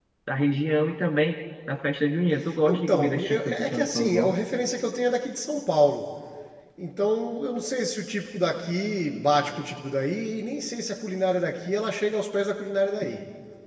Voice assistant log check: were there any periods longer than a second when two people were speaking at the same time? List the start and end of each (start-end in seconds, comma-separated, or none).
2.7-4.3